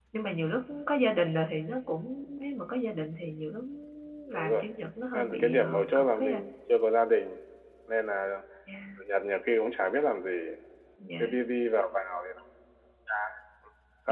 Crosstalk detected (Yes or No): Yes